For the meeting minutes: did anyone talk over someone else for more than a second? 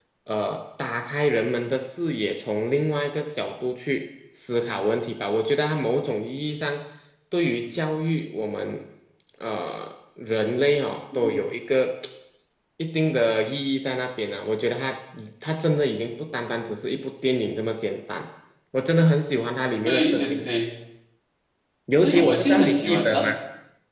Yes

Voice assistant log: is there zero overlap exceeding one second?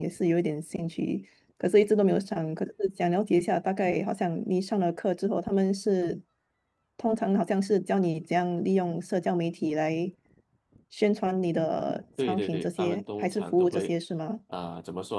No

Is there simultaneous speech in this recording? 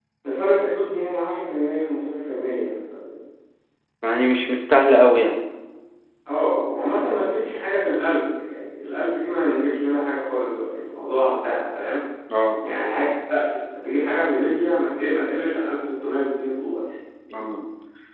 No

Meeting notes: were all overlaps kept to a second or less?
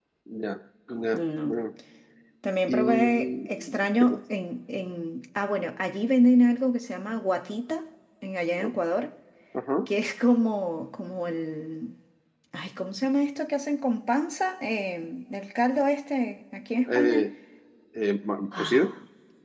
No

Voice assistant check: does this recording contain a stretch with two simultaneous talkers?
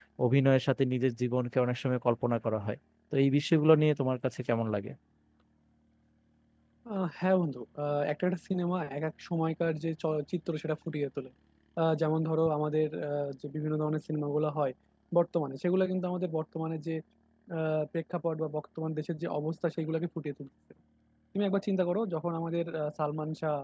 No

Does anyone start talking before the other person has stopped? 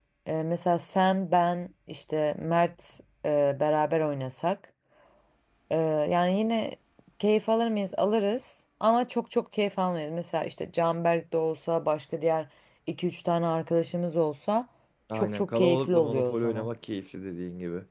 Yes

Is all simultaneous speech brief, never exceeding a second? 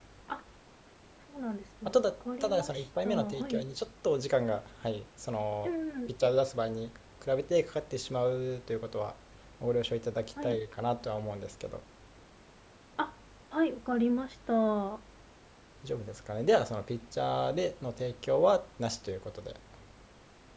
No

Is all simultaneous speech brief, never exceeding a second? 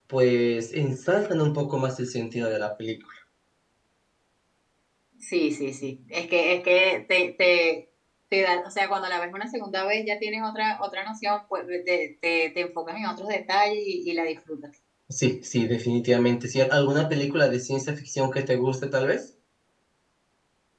Yes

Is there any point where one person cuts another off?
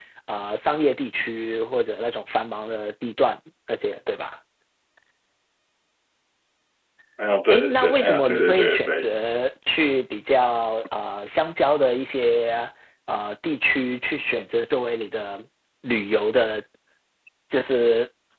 Yes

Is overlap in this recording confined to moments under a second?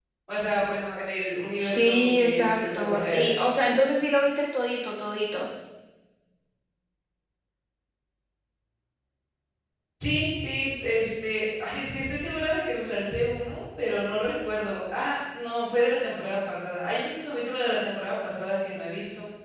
No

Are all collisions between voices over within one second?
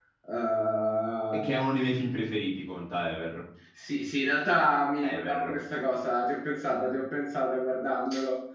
Yes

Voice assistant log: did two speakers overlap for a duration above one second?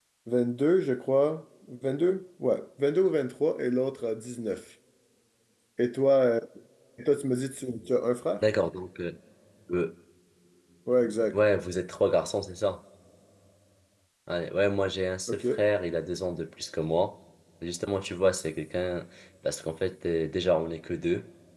No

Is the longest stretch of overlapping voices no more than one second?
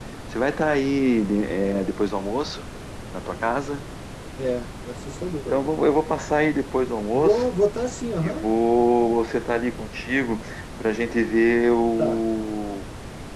Yes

